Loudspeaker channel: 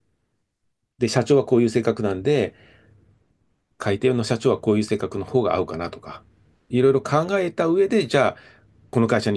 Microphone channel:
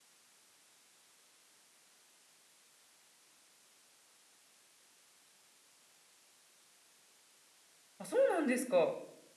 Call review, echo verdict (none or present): none